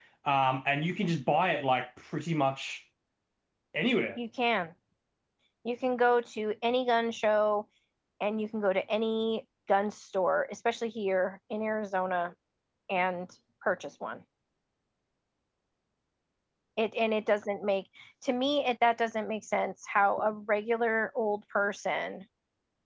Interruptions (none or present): none